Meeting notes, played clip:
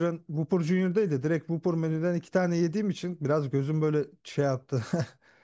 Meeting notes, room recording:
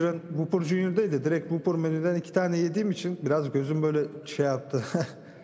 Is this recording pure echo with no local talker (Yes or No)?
Yes